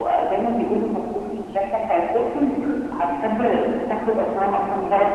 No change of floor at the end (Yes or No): No